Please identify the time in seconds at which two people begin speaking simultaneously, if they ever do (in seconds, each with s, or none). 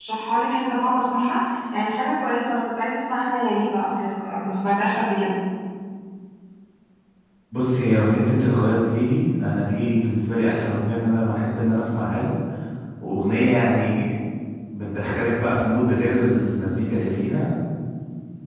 none